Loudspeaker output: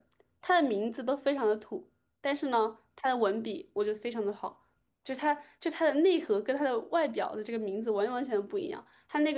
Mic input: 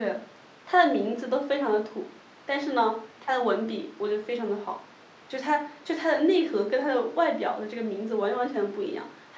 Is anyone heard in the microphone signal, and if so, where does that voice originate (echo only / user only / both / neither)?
echo only